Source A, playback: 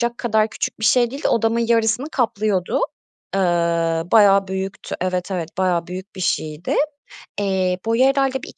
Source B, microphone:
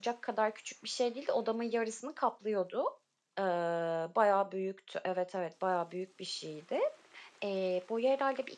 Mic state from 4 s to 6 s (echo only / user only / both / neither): echo only